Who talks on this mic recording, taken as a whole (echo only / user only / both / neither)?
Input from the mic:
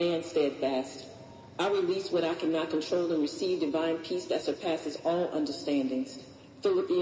echo only